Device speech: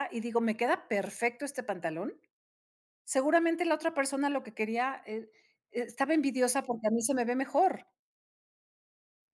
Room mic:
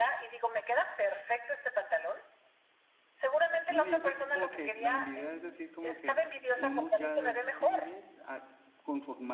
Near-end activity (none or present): present